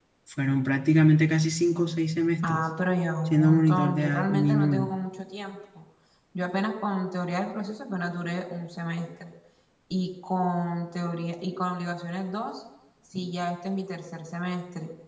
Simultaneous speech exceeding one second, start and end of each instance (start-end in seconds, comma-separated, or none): 3.3-4.9